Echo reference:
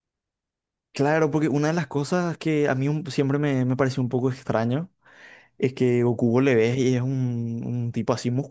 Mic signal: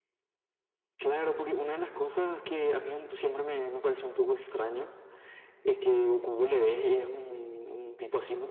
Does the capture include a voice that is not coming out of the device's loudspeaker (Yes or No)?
No